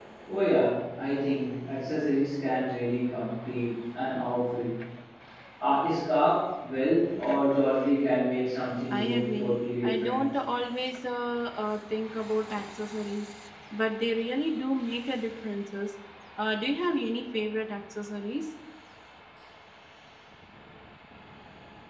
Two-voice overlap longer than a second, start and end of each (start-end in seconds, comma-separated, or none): 8.9-10.2